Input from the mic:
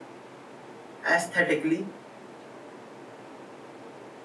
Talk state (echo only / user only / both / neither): user only